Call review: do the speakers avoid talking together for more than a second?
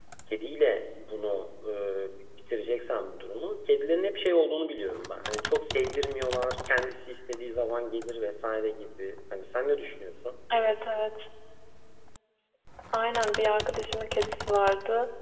Yes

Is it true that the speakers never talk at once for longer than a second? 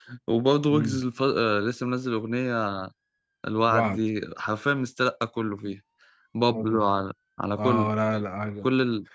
Yes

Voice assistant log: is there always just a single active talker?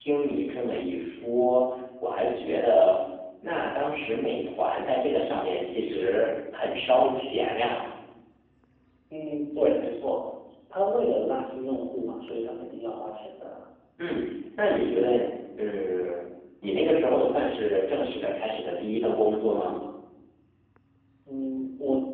Yes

